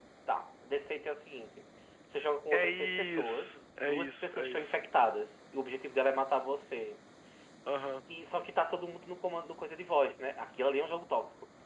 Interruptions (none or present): present